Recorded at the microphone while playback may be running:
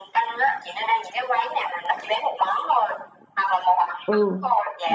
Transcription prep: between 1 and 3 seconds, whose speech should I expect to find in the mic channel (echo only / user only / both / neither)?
echo only